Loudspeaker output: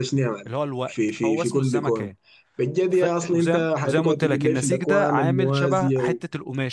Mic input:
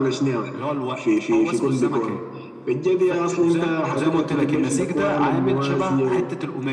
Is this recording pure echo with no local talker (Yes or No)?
Yes